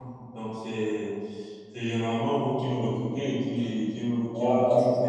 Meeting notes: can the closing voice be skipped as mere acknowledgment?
No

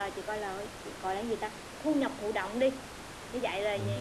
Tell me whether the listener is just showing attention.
Yes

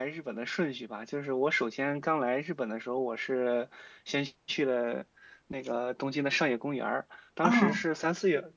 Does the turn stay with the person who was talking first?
Yes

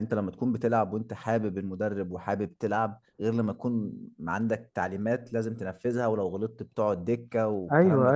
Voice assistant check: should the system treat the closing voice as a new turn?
Yes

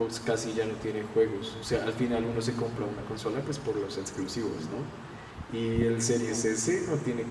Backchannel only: Yes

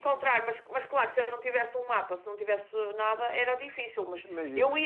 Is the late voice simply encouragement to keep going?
Yes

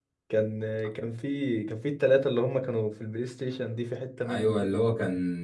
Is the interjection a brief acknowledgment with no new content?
No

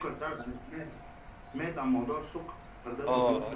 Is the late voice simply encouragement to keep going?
No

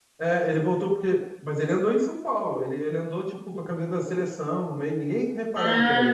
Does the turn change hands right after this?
Yes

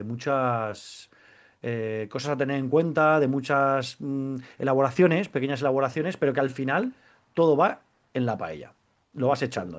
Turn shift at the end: No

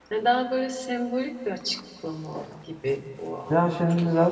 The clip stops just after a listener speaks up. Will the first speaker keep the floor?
No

